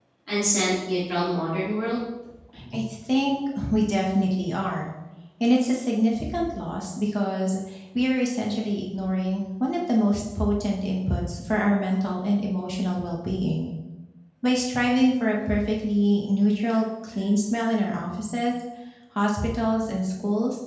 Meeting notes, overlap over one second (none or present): none